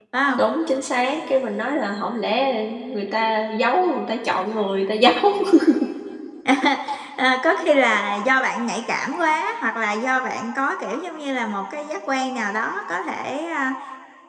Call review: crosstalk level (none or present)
none